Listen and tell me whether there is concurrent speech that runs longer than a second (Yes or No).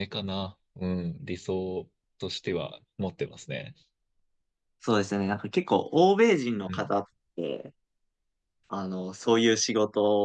No